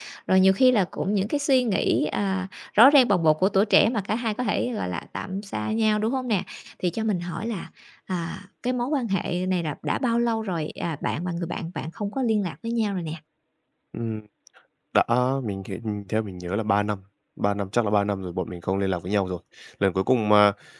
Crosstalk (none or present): none